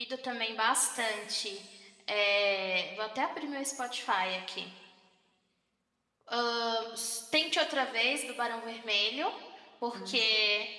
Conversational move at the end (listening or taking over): listening